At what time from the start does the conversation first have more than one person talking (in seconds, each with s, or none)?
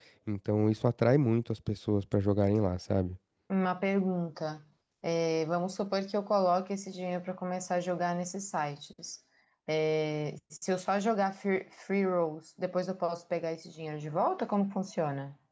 none